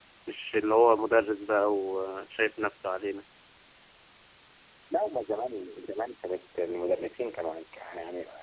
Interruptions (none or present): none